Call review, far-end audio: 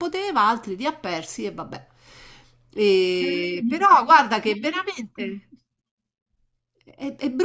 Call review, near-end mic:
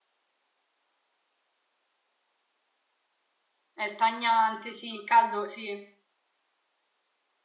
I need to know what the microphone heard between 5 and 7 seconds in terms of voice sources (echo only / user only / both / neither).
user only